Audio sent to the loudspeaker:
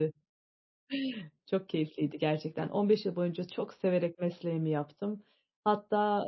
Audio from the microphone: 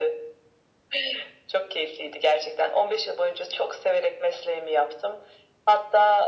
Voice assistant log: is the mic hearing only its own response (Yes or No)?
Yes